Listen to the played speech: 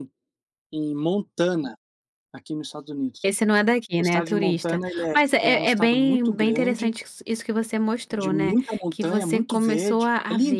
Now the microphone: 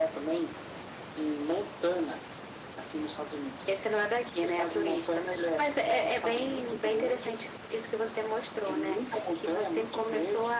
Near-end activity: none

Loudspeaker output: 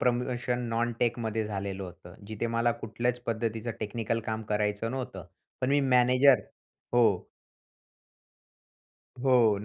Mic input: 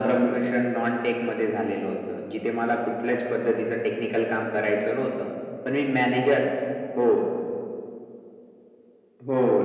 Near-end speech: none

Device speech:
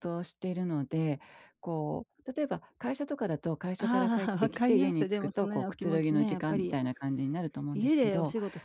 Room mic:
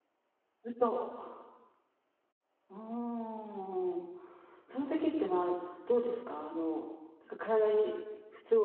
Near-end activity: present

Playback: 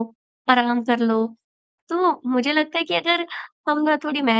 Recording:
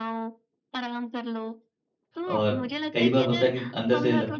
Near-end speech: present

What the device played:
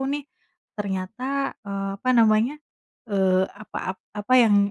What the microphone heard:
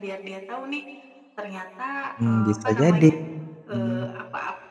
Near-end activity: present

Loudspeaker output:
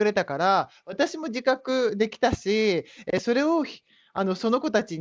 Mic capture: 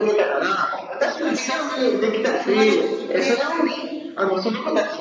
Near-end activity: present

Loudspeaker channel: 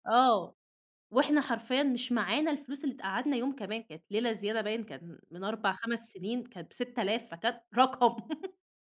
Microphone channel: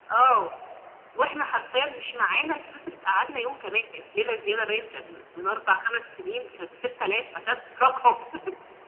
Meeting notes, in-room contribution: none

